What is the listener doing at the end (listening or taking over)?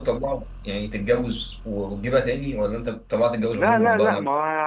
taking over